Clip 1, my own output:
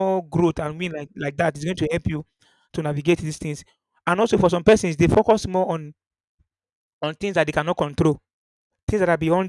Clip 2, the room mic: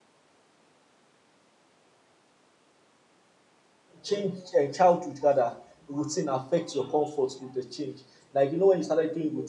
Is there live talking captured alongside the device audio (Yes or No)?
Yes